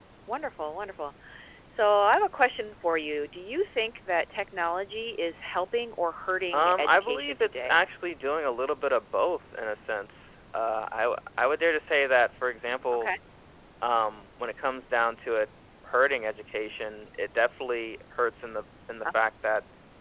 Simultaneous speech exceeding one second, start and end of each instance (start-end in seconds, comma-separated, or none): 6.5-7.8